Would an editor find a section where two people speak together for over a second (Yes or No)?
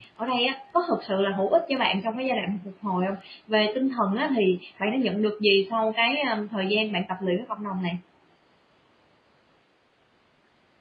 No